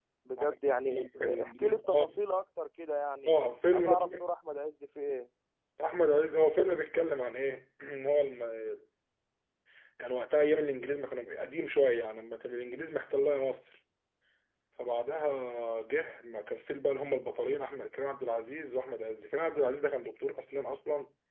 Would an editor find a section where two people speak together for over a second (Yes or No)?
Yes